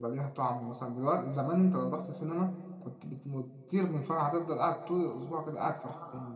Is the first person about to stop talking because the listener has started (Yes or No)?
No